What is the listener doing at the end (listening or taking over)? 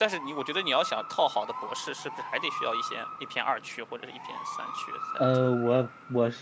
taking over